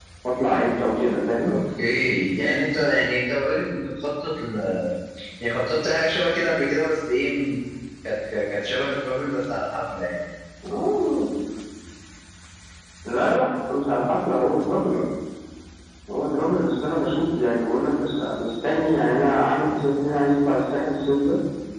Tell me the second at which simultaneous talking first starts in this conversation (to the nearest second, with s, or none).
none